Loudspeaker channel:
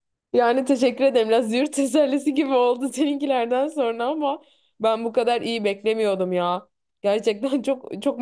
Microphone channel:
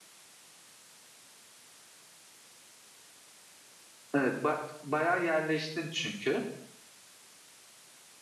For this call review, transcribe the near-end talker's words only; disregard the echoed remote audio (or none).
evet, ba- bayağı yerleştin çünkü.